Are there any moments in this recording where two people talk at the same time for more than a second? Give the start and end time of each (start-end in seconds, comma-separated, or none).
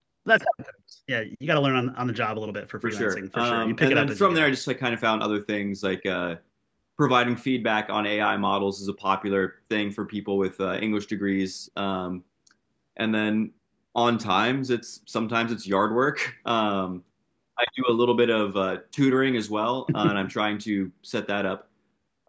2.8-4.5